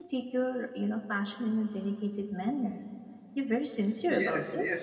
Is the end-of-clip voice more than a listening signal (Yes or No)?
Yes